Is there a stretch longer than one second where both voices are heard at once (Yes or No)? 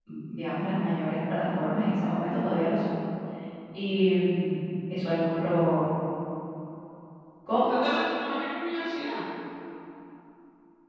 No